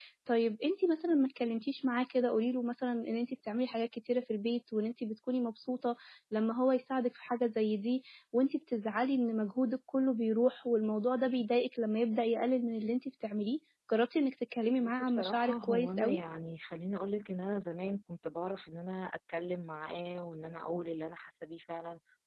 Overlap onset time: 15 s

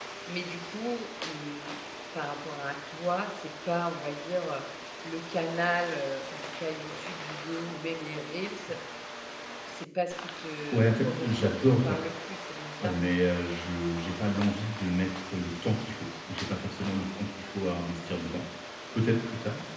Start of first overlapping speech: 11 s

